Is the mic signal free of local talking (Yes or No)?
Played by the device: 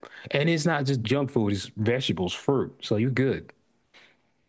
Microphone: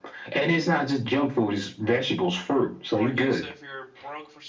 No